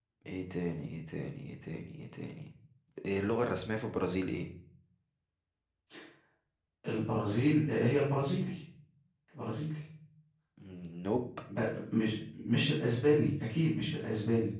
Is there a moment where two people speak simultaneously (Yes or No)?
No